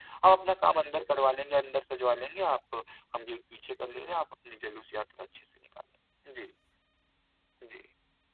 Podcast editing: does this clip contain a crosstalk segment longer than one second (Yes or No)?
No